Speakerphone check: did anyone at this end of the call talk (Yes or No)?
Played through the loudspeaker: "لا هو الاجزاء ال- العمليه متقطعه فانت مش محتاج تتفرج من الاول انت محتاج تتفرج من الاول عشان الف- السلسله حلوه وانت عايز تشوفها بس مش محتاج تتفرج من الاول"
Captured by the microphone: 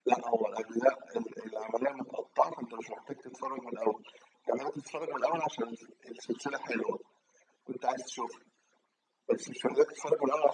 No